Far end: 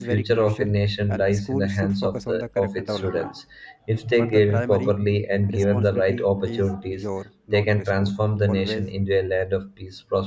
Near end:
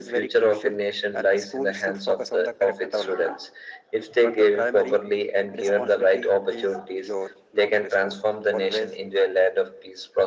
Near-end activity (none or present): none